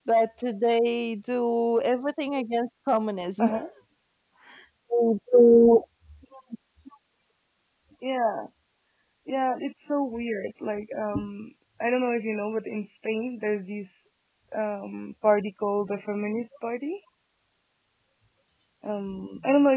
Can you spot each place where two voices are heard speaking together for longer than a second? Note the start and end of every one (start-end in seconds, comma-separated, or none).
none